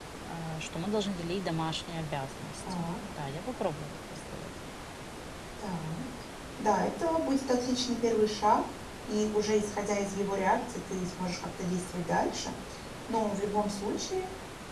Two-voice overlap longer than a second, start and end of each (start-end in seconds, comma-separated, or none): none